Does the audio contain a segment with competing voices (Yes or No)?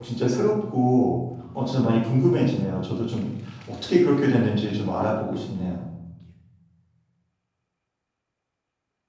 No